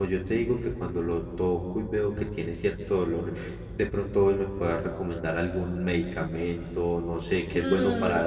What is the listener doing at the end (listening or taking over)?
taking over